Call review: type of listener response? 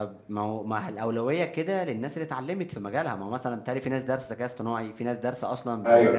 taking over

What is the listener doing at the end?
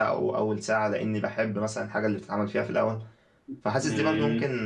listening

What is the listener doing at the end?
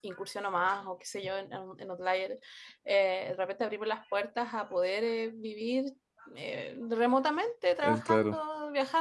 listening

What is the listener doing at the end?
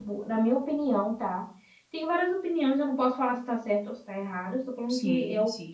listening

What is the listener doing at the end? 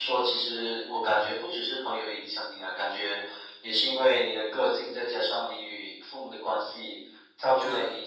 listening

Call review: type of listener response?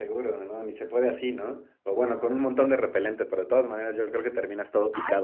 taking over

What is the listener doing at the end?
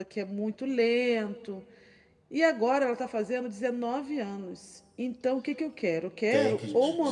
taking over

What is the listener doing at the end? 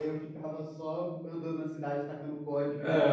taking over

